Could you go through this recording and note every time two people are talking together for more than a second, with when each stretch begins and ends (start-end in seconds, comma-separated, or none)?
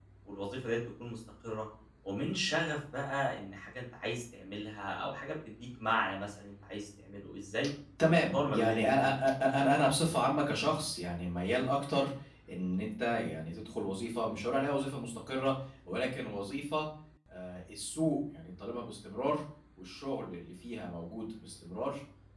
8.1-9.3